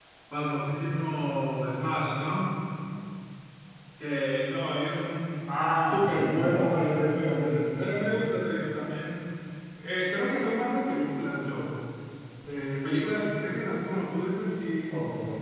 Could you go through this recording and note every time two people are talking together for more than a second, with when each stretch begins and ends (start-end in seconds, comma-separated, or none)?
5.9-8.0